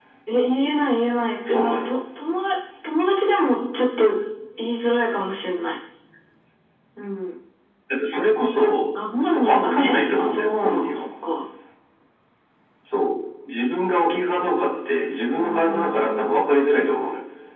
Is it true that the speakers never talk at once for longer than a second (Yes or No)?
No